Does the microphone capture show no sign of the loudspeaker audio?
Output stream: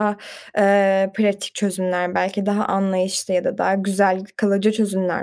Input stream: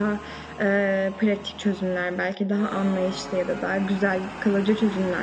No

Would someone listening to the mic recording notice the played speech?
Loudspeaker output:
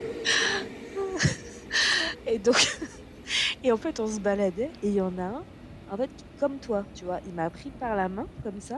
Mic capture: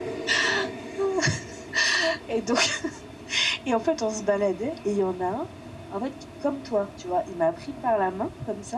Yes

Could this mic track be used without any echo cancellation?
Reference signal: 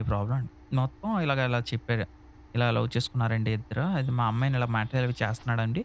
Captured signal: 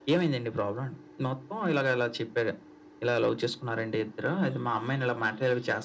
No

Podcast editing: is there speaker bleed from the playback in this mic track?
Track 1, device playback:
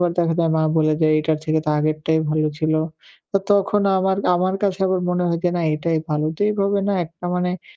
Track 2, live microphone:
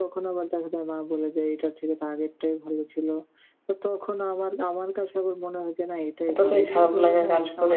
Yes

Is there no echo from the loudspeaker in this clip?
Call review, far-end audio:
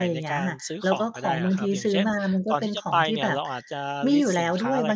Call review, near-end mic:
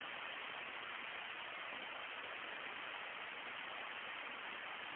Yes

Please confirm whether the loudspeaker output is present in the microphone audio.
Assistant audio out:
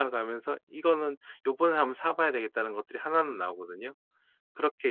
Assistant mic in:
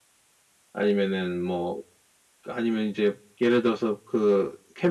No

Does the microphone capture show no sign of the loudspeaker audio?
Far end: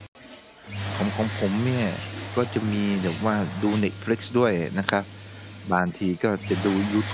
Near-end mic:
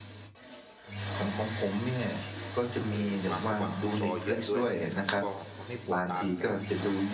No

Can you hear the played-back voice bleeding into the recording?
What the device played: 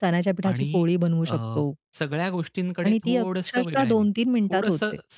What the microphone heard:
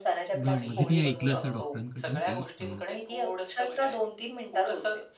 Yes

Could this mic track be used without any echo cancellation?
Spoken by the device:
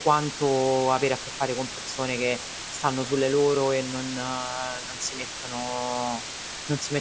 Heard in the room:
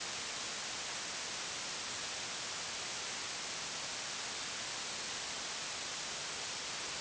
Yes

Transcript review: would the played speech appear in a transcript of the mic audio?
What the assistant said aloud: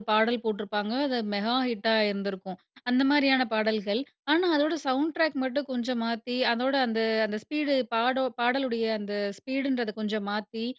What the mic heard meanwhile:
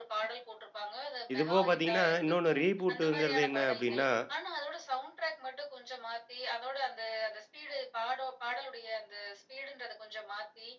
Yes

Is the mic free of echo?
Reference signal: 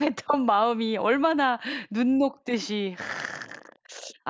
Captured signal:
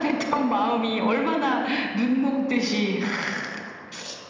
No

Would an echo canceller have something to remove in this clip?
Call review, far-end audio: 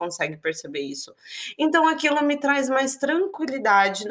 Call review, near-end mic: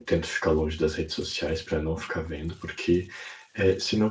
No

